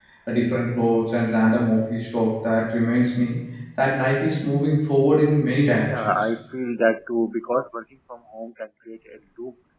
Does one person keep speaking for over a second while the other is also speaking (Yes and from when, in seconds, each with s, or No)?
No